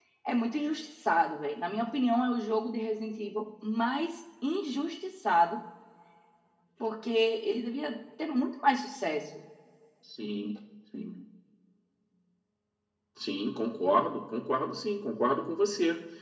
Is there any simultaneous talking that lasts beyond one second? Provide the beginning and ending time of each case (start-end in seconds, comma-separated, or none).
none